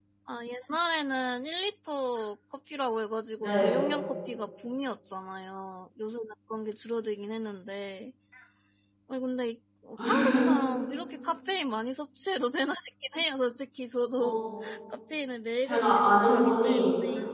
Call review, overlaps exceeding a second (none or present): present